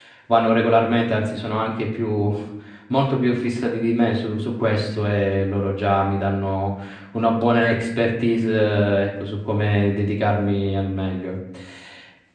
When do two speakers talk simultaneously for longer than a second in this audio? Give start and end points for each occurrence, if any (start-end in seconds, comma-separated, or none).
none